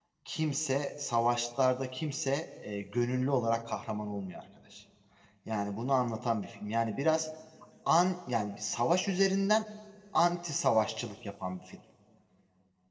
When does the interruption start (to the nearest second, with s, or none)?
none